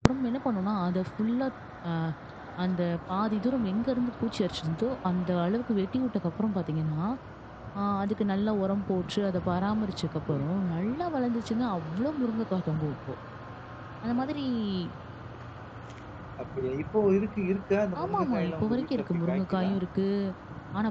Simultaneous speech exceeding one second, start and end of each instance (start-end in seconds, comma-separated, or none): 18.0-19.7